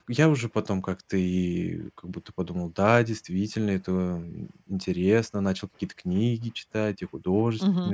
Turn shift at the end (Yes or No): No